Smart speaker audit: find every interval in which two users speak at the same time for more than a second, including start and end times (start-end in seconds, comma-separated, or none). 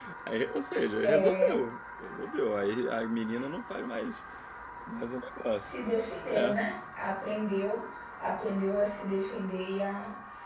none